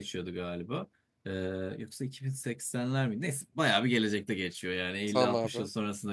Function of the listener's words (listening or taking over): listening